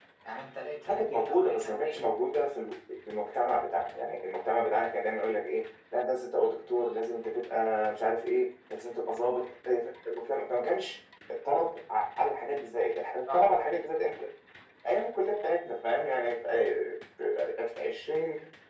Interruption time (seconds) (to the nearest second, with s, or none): 1 s